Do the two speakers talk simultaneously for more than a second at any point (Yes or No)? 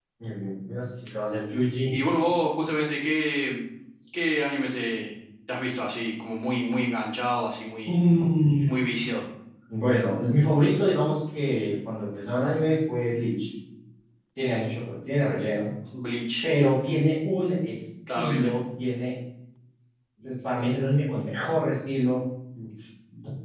No